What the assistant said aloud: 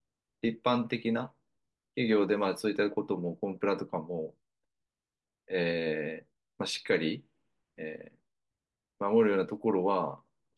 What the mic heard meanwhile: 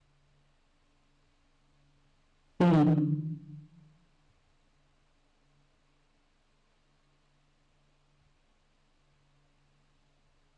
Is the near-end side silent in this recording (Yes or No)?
No